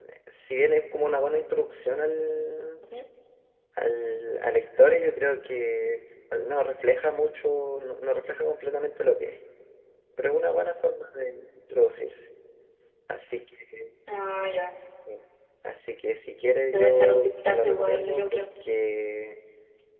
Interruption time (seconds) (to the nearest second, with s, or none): 17 s